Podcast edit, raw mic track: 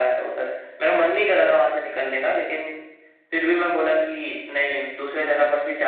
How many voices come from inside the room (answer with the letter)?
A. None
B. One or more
A